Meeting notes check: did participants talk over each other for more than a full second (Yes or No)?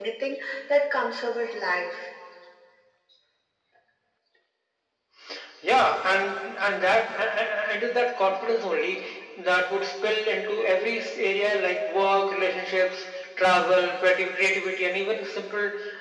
No